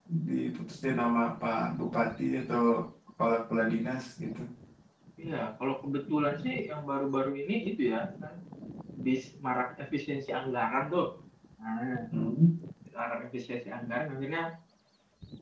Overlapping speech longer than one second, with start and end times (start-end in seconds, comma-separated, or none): none